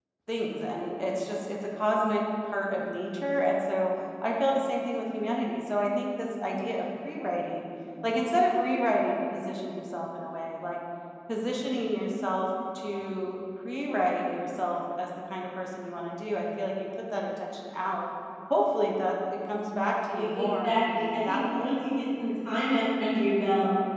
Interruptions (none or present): present